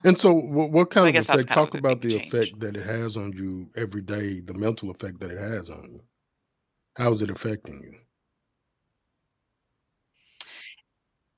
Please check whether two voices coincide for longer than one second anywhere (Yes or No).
Yes